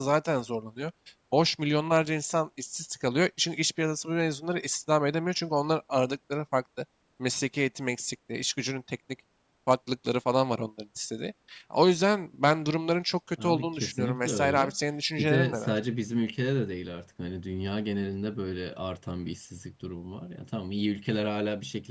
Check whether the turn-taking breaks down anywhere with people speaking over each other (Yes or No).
Yes